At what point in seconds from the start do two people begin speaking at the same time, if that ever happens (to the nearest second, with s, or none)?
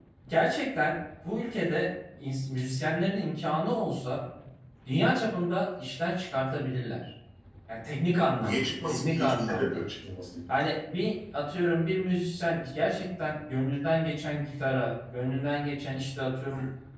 8 s